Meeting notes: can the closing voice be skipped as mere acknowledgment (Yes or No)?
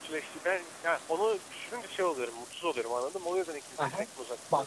No